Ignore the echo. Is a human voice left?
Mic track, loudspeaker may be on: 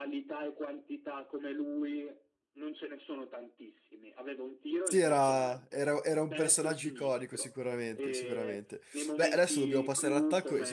Yes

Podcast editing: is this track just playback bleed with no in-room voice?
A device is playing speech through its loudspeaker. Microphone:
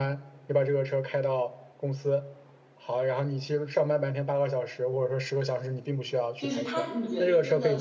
No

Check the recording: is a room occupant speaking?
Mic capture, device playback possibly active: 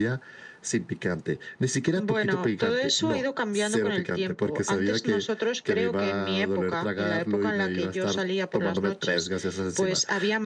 No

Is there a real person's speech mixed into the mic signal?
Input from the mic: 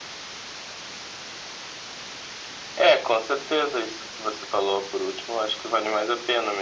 No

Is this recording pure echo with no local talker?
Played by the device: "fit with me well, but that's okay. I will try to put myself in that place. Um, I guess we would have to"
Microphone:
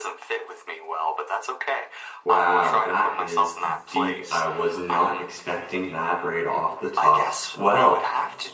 No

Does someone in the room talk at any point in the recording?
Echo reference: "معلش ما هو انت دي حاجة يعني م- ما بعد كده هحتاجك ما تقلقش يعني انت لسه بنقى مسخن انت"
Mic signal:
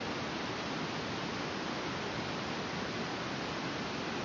No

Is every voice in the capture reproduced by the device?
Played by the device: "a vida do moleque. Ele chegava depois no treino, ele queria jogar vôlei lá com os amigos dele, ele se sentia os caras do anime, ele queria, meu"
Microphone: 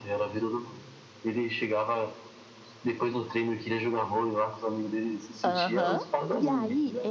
No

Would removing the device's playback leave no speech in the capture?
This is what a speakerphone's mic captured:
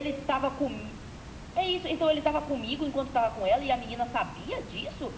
Yes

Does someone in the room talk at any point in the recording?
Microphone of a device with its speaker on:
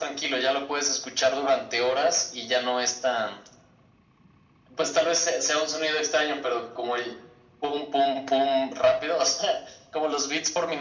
No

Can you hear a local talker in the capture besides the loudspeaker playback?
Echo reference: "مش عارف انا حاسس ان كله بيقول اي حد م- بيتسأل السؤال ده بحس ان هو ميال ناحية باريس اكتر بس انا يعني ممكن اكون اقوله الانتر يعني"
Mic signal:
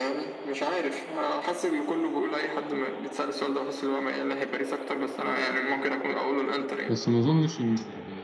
Yes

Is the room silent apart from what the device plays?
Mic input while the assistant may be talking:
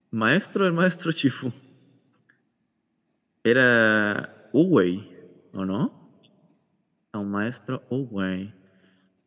No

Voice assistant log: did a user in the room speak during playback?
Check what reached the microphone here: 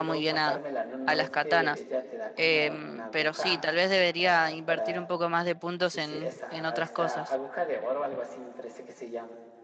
Yes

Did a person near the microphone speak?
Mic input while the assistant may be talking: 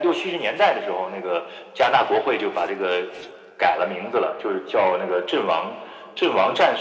No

